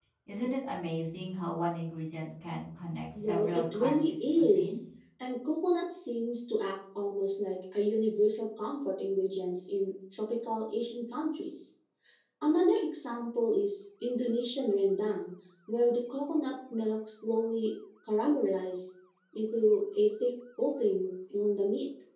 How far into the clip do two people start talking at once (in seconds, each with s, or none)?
3.1 s